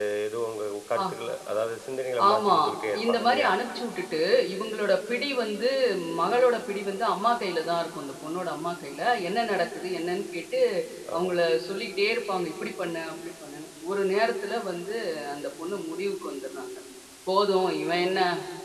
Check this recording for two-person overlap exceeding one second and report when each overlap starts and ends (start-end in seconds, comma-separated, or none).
none